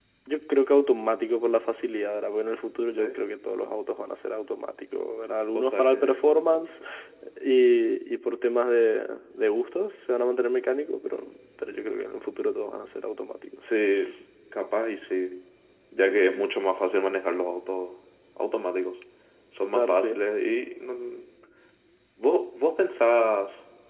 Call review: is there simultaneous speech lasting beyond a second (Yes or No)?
Yes